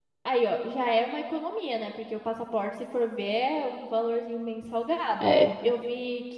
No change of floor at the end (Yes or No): Yes